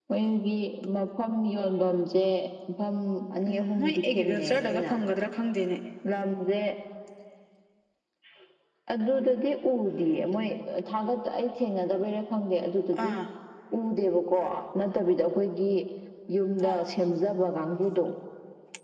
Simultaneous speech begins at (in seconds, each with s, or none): 3.5 s